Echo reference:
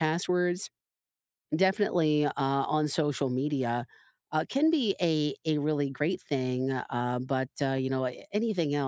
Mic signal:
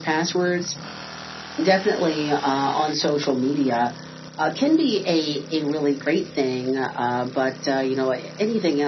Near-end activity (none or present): none